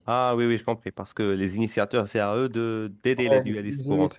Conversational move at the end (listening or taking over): taking over